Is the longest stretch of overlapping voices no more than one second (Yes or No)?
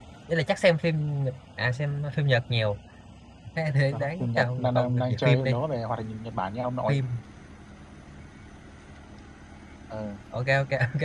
No